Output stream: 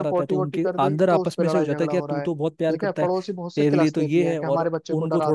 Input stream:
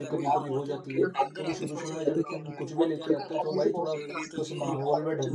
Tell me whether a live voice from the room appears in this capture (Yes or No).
Yes